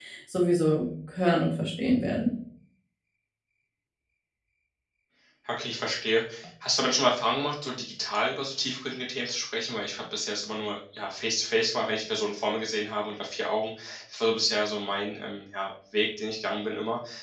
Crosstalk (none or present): none